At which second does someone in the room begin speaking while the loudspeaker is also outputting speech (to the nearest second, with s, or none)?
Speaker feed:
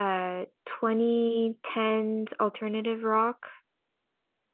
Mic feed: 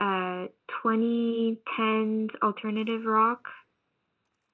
none